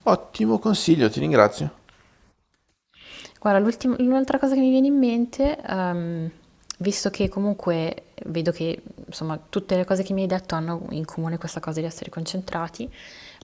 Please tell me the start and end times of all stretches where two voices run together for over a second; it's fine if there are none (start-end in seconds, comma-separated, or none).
none